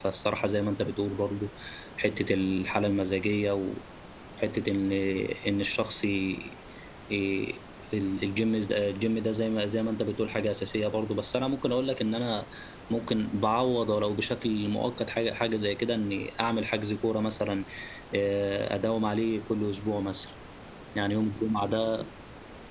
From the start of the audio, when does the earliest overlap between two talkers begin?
none

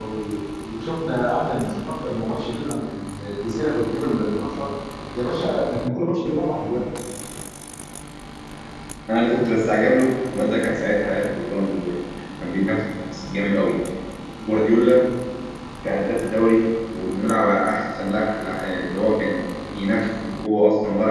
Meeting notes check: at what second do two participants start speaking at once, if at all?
none

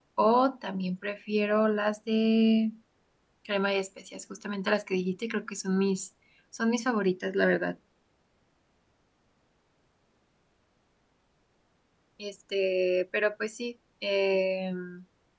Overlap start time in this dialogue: none

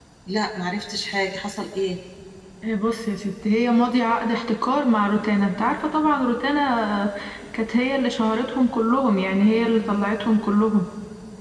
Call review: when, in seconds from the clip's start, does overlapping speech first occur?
none

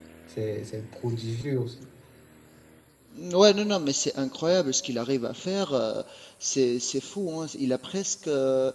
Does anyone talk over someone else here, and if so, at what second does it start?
none

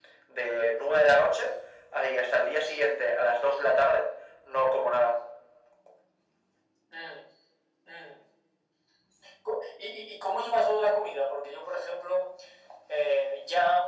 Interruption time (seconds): none

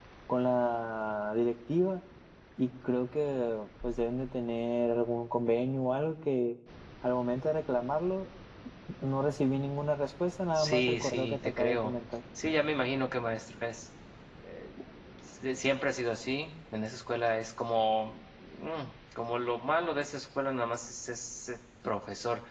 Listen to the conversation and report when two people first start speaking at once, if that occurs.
10.6 s

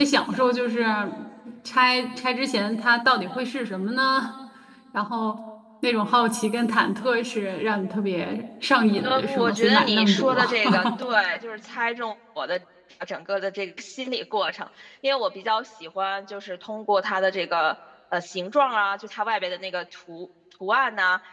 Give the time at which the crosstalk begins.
9.0 s

